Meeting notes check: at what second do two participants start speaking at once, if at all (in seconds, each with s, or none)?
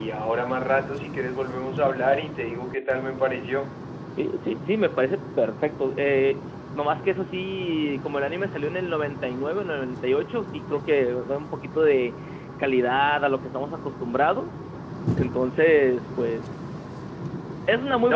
none